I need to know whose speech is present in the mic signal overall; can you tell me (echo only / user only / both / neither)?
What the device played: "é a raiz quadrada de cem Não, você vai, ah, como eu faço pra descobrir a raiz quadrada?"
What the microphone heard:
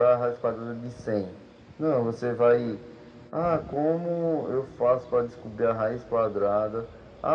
echo only